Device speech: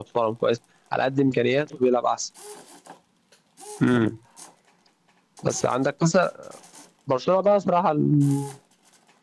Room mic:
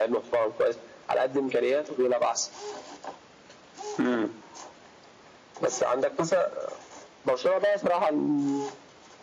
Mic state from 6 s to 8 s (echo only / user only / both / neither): echo only